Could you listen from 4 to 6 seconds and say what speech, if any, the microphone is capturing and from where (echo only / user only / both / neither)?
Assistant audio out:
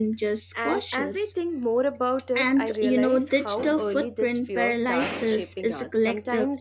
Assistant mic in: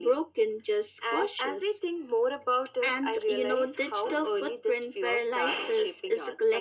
echo only